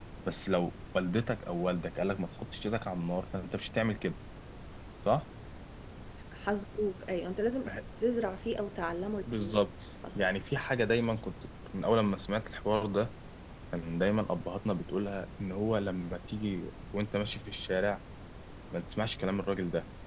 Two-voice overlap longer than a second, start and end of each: none

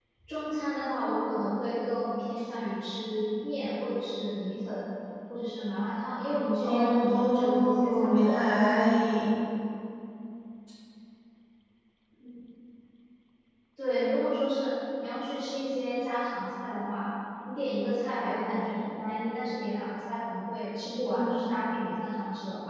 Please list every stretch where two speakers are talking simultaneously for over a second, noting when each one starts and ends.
6.6-8.4

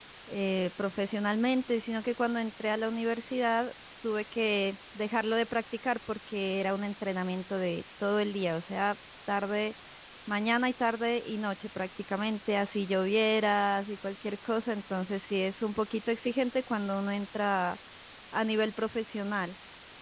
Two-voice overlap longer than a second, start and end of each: none

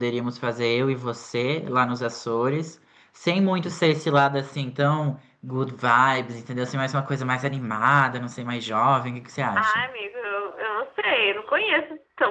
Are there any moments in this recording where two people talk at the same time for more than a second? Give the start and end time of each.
none

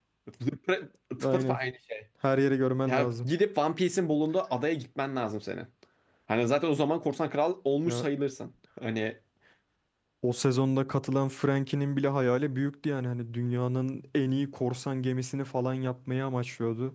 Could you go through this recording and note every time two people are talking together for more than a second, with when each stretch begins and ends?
none

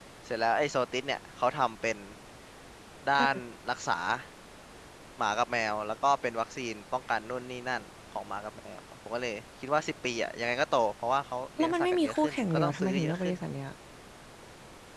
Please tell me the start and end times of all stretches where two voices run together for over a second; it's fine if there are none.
11.6-13.4

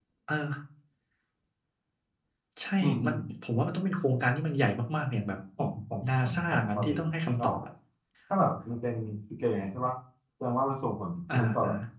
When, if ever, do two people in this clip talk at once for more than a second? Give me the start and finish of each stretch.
6.1-7.5

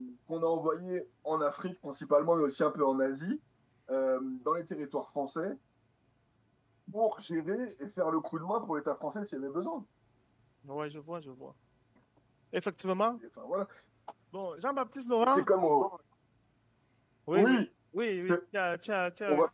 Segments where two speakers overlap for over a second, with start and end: none

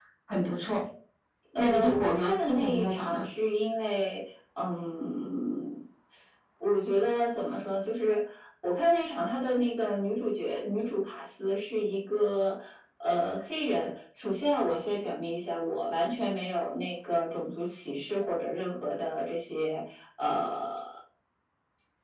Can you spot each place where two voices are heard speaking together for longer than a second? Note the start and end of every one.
1.6-3.2

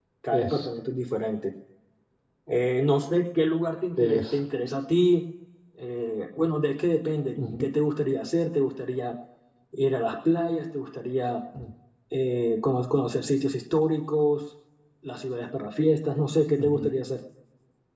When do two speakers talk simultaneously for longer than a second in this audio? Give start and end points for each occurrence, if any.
none

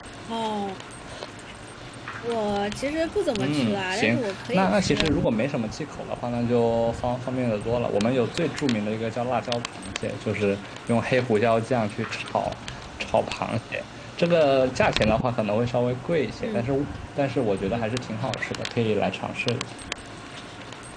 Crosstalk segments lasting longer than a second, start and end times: 3.4-5.1

